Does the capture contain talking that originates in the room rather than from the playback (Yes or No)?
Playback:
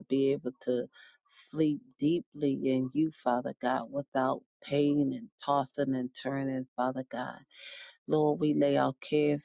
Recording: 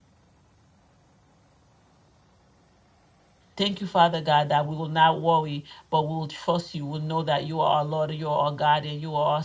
Yes